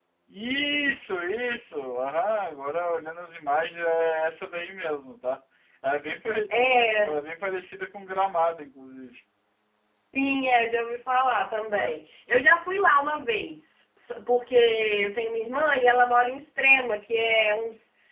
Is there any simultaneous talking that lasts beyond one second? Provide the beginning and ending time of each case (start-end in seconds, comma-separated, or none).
none